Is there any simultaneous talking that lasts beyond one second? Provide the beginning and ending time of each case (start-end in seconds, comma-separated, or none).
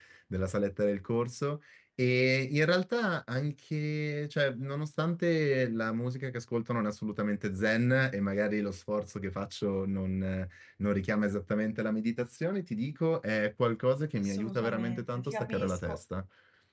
14.2-16.0